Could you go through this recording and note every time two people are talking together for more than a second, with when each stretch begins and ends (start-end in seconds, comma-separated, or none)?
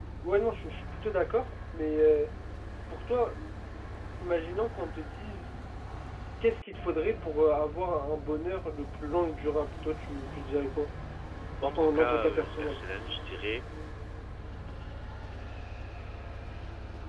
11.6-12.8